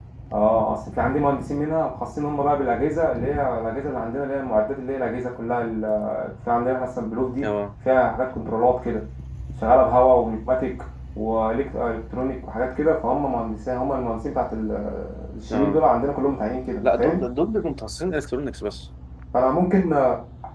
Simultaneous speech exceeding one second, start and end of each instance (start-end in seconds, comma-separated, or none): none